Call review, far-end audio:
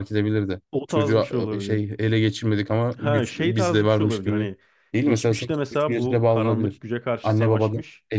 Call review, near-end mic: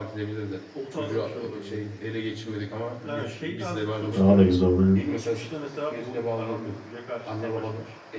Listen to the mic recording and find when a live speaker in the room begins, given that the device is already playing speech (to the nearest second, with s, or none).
4 s